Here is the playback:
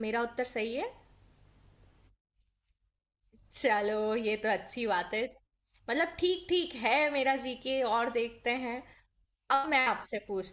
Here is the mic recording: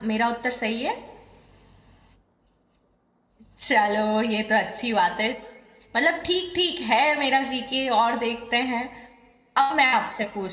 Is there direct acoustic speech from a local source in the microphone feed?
No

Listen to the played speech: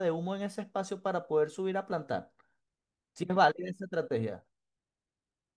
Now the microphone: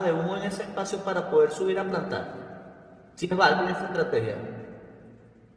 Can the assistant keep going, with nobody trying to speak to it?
Yes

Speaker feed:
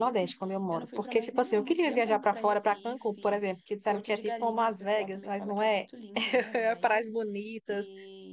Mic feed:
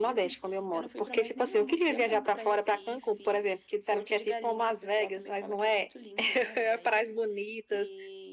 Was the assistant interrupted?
No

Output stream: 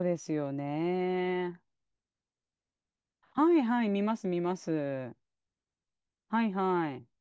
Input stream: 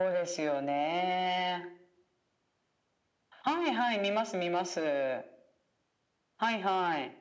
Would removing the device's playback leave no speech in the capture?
Yes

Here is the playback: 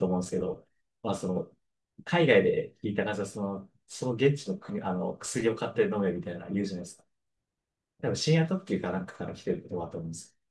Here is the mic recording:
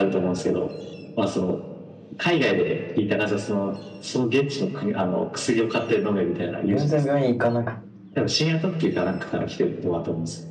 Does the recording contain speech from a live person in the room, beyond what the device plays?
Yes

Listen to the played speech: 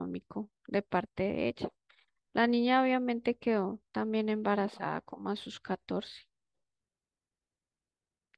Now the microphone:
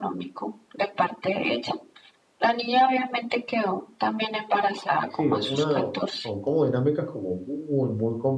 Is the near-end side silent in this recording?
No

